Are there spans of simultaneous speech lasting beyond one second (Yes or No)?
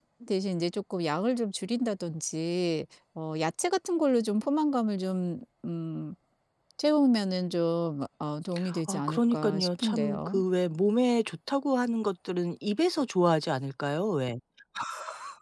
Yes